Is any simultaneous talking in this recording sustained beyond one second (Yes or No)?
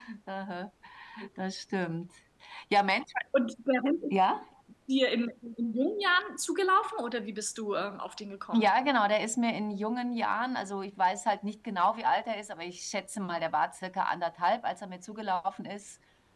No